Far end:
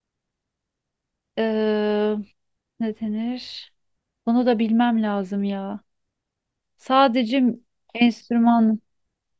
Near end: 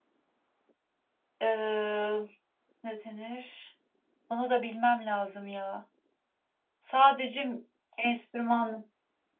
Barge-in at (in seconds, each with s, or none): none